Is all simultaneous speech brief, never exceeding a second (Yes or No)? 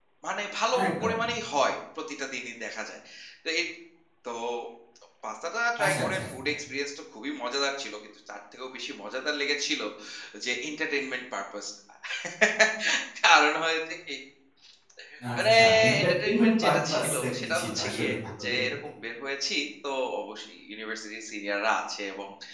No